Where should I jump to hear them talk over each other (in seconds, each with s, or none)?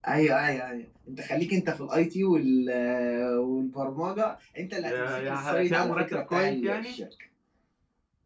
4.8 s